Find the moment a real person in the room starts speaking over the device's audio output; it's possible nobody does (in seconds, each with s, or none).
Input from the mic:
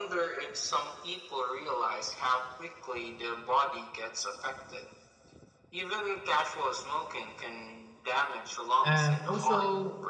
8.8 s